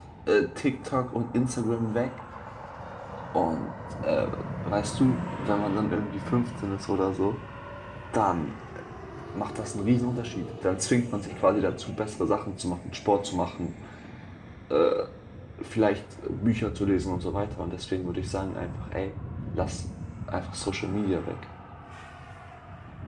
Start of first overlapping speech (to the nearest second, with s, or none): none